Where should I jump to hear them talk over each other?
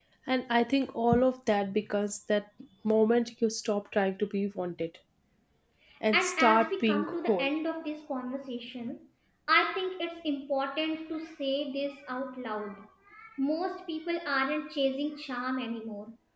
6 s

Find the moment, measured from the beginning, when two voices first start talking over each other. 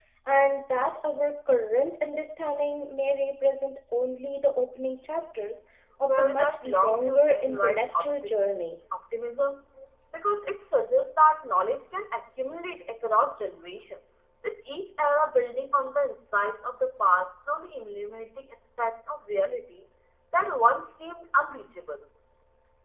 6 s

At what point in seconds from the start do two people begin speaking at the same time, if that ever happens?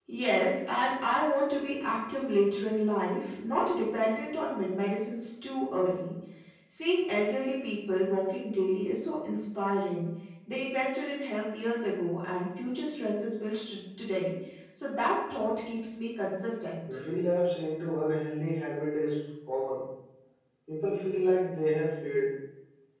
none

